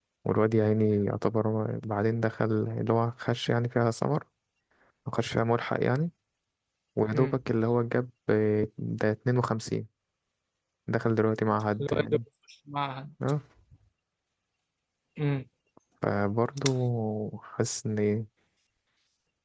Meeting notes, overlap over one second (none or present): none